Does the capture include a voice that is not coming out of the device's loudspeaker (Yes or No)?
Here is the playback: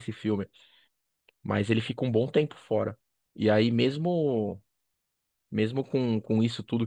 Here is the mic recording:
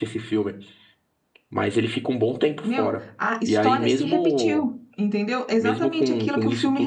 Yes